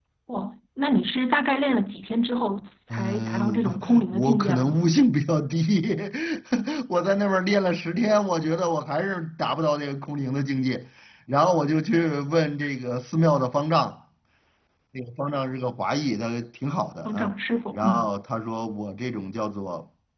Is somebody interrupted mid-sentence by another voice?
Yes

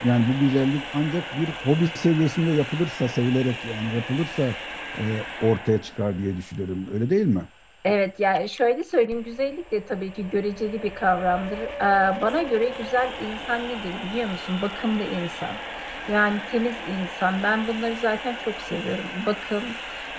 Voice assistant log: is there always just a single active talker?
Yes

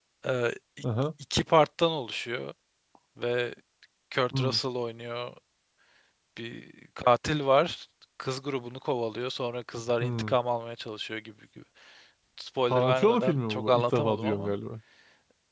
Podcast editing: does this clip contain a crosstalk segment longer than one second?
Yes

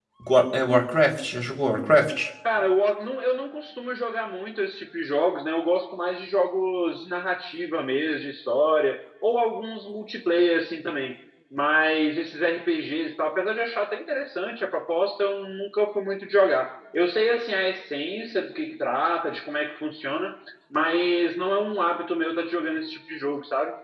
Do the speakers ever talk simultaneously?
No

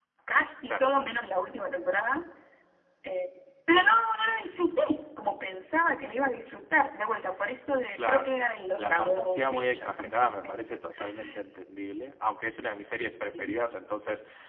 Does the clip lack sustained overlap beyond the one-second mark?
No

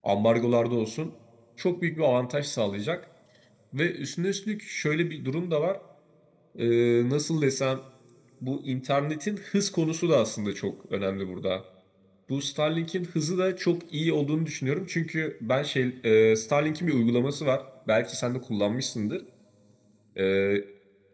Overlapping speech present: No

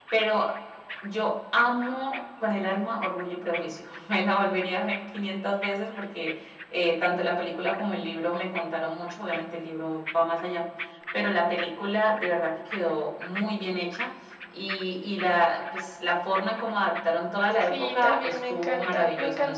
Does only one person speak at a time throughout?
No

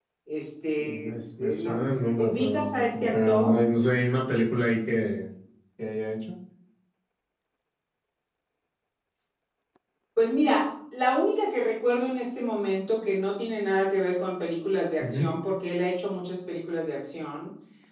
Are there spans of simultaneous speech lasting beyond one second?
Yes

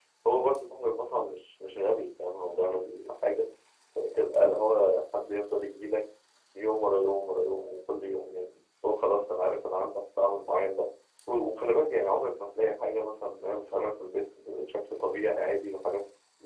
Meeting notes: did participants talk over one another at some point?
No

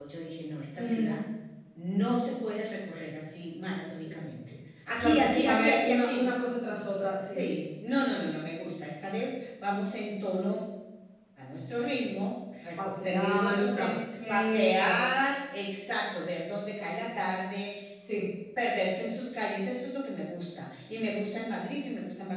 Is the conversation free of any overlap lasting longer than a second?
No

